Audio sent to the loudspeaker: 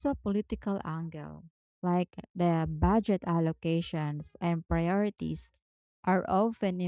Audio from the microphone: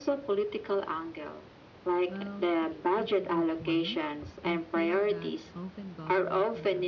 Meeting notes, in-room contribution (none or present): present